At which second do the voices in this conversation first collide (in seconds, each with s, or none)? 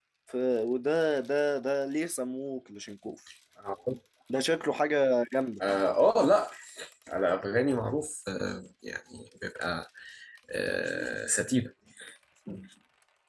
none